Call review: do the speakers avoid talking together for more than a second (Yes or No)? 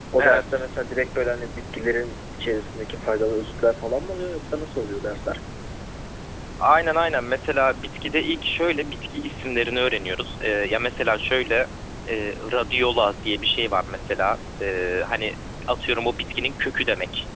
Yes